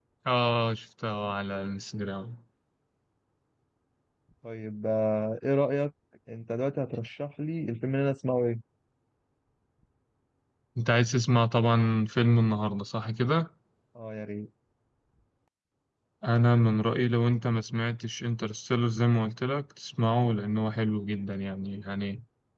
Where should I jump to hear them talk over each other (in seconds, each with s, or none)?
none